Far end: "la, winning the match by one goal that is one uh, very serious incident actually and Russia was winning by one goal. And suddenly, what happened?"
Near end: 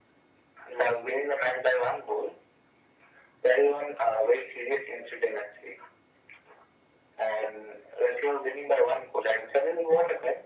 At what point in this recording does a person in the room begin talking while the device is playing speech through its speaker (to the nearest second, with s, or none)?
none